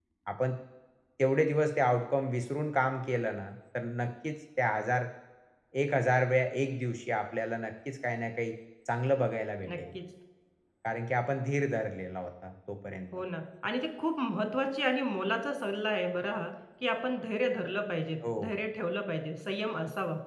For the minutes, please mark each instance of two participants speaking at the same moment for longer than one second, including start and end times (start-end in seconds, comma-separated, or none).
none